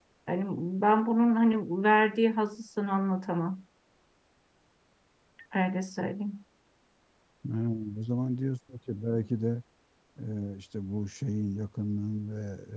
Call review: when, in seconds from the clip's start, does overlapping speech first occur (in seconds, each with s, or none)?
none